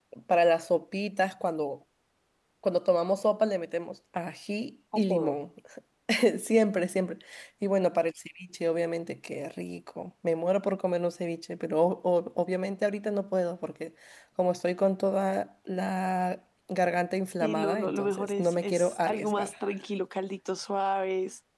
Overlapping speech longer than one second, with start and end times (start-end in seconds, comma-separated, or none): 17.4-19.5